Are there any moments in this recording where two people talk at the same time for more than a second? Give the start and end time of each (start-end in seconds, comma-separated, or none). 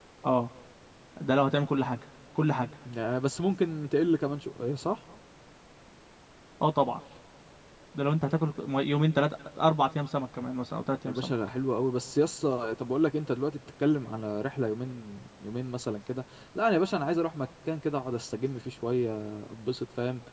none